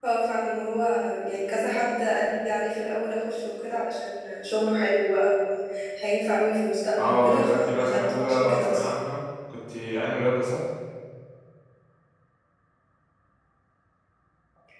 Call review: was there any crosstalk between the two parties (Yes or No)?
Yes